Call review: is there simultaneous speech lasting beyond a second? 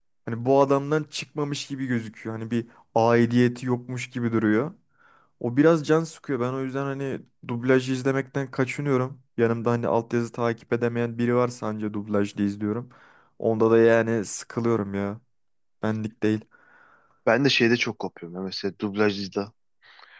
No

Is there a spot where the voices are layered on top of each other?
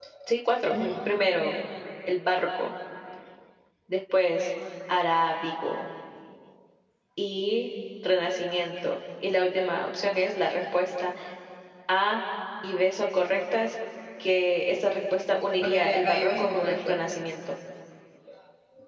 Yes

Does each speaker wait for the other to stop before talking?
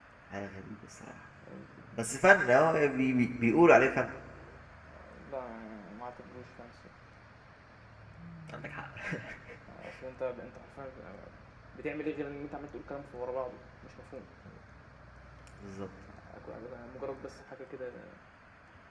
Yes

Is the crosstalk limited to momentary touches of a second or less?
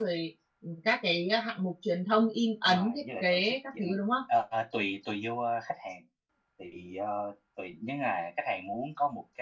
No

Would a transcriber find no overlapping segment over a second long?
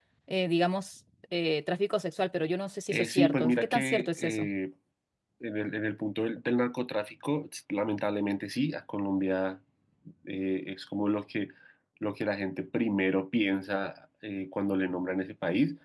No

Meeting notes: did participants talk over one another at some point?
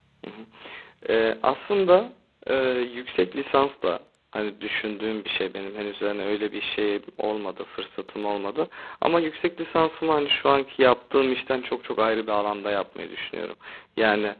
No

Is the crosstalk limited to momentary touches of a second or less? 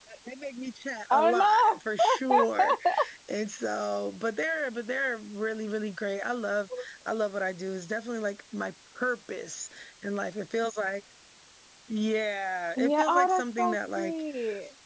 No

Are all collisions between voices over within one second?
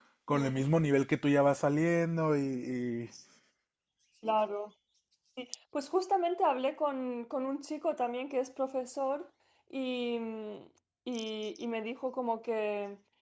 Yes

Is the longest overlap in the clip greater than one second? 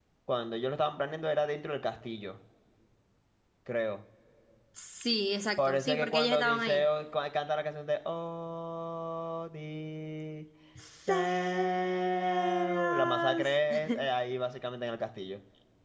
Yes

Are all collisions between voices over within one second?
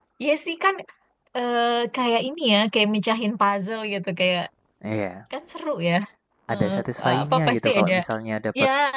No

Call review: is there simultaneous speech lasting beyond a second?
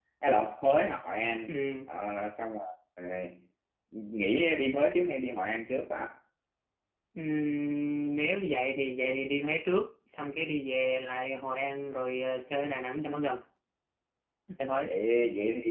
No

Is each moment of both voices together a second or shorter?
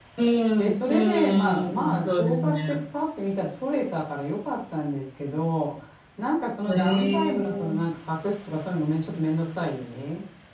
No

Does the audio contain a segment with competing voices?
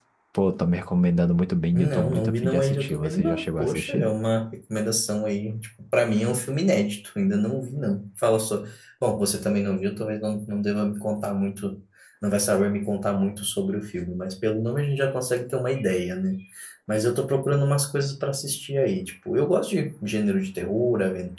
Yes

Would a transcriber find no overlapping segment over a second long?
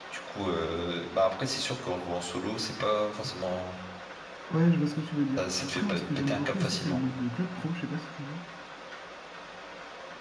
No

